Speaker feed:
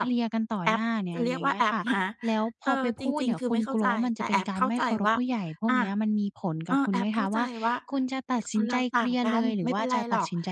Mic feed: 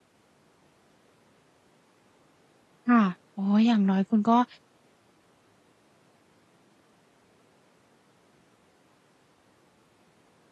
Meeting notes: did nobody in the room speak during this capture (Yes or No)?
No